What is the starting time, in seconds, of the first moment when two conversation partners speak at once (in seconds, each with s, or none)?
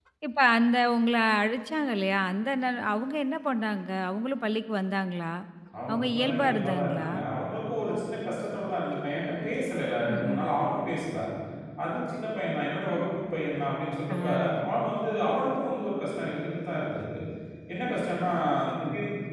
5.9 s